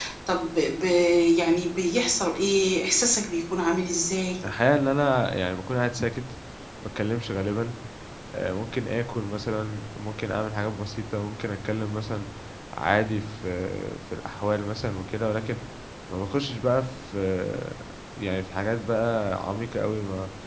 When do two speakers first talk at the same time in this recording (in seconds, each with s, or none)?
none